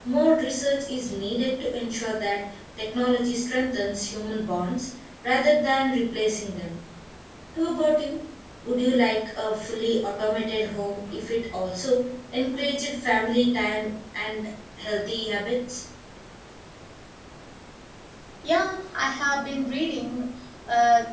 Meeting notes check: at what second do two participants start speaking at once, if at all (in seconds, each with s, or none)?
none